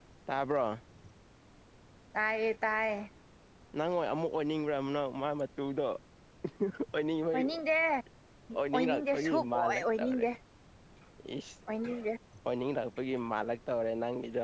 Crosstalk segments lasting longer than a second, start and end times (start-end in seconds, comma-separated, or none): 8.7-10.2